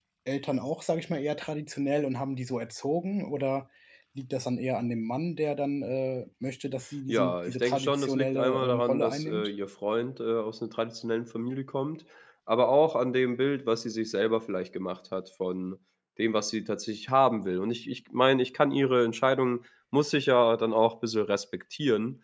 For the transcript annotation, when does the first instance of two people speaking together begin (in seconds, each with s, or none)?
7.1 s